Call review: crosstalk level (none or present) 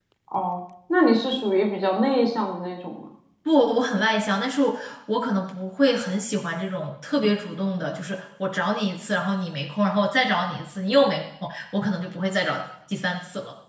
none